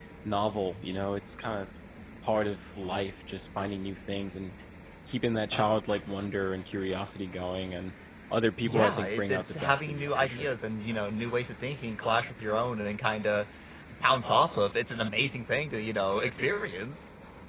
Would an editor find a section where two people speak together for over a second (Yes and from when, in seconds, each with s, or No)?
Yes, from 8.6 s